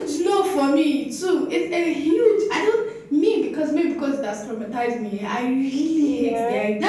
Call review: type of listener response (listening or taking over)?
listening